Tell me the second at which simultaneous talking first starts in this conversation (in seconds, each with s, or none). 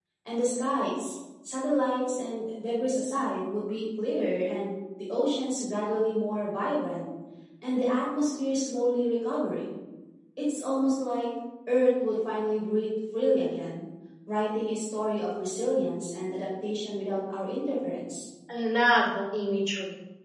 none